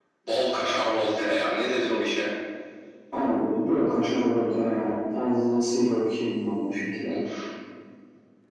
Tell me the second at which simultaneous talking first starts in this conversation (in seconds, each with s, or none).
none